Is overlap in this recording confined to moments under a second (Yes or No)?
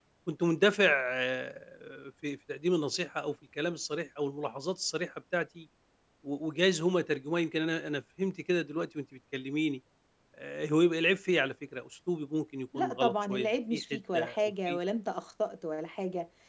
No